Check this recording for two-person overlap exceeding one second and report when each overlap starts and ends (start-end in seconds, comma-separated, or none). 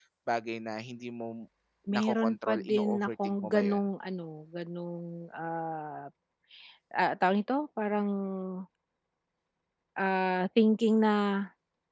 1.9-3.8